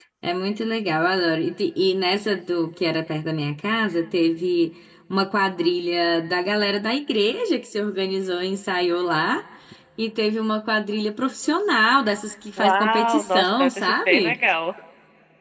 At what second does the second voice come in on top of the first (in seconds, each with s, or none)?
12.6 s